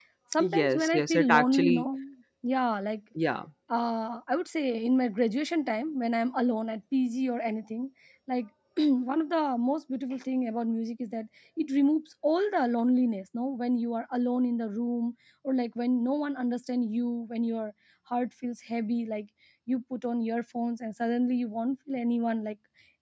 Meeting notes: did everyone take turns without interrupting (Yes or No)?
No